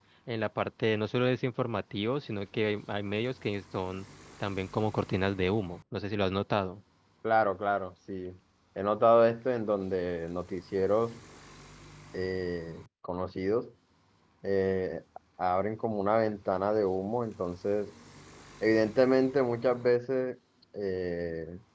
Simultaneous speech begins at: none

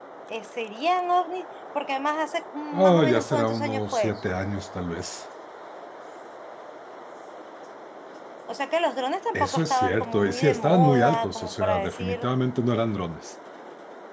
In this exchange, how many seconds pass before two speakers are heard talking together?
2.7 s

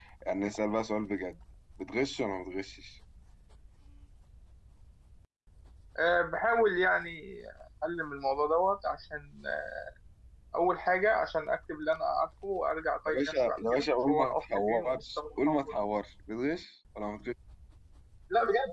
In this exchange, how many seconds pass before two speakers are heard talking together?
13.1 s

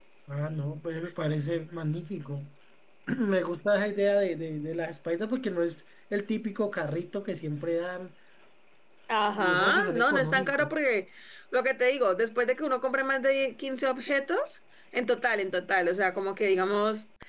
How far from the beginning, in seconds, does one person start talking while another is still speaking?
9.4 s

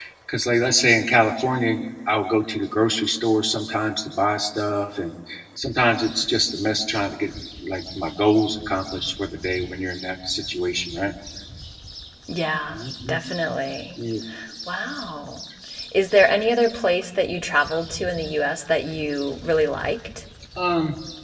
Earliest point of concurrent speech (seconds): none

